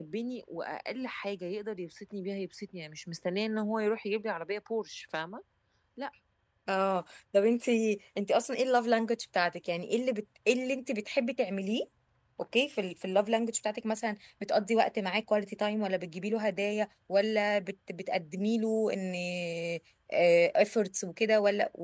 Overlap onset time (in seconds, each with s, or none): none